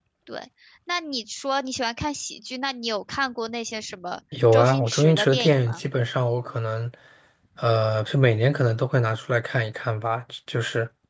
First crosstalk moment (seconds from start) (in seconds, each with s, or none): 4.3 s